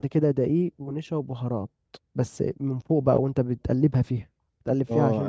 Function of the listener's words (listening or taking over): taking over